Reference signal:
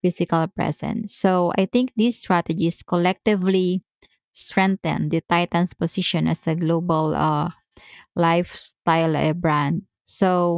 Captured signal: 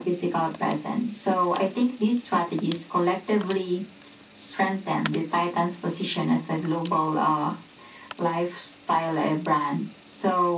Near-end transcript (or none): none